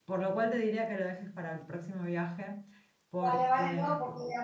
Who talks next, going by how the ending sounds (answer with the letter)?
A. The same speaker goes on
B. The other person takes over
B